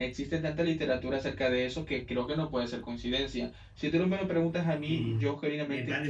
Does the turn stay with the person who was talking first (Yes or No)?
No